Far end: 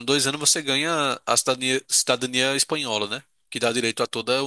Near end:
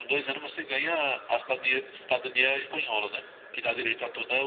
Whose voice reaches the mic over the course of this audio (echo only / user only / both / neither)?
echo only